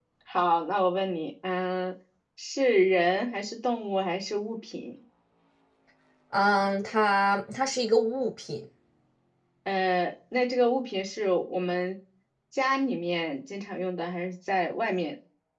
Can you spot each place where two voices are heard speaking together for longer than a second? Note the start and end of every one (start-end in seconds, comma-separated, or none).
none